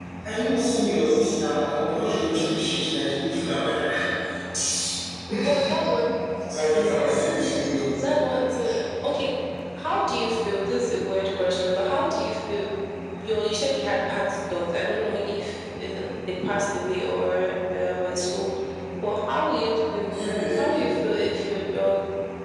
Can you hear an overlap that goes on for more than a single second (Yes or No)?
No